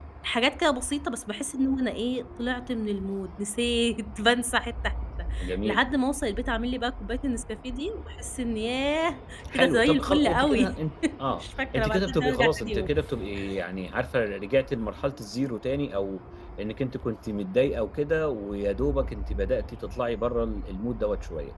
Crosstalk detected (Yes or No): Yes